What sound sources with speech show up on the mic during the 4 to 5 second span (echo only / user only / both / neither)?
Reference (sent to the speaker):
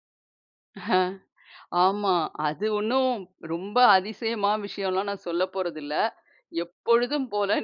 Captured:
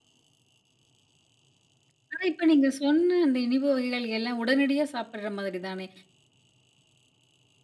user only